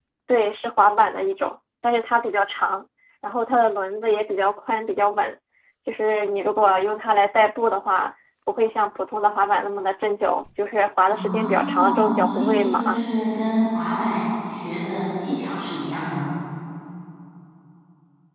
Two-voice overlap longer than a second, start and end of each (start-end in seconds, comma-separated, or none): 11.1-13.0